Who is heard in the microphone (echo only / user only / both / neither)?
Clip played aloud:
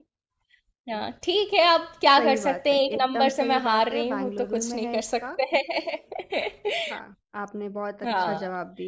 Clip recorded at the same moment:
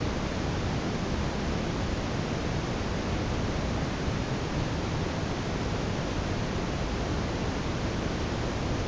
neither